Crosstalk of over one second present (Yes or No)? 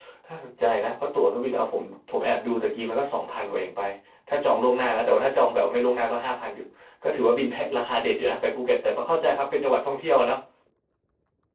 No